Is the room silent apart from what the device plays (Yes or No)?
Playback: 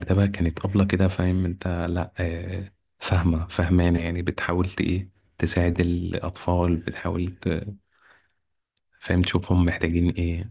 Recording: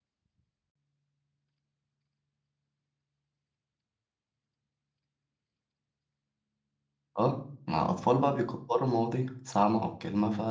No